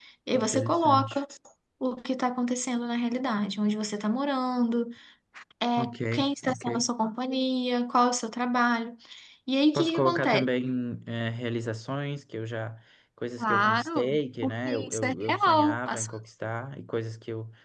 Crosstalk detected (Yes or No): Yes